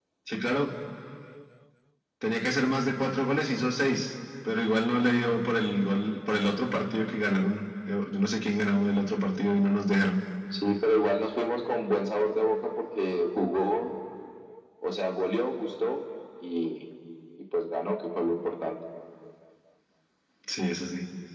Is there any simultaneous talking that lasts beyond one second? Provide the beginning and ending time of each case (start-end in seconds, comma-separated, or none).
none